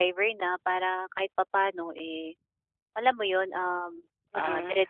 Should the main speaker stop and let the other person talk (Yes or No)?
No